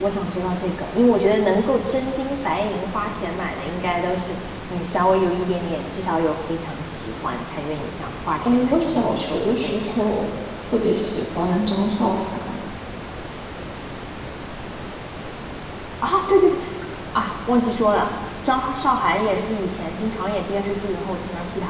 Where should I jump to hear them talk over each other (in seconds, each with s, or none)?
8.4 s